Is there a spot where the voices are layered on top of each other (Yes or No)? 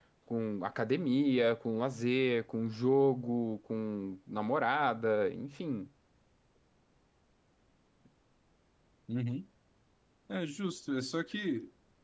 No